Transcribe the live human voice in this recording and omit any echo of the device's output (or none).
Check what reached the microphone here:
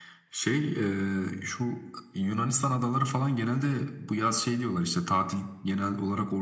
none